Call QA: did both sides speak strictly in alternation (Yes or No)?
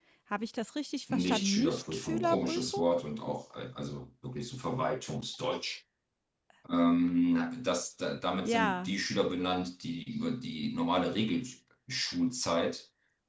No